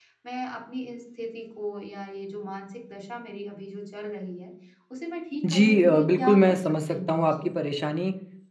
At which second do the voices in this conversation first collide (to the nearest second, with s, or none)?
6 s